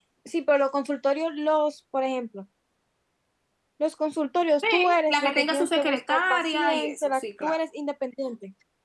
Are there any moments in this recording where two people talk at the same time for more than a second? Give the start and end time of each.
4.7-7.6

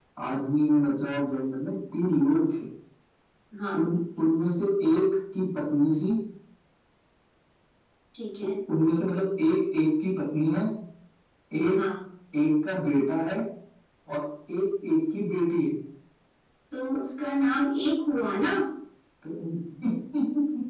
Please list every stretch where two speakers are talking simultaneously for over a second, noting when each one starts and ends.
none

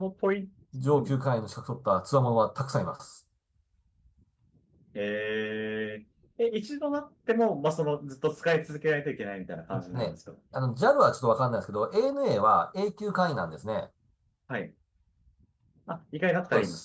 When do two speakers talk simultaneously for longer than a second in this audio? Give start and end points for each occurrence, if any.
none

